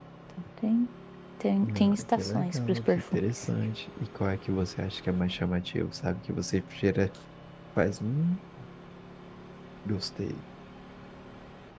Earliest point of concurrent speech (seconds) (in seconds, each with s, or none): 1.8 s